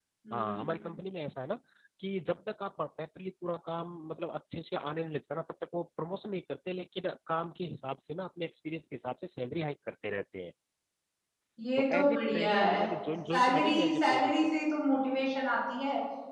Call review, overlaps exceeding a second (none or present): present